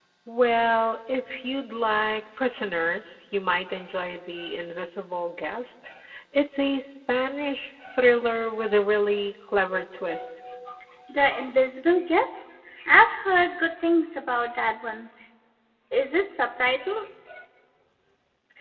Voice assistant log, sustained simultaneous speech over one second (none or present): none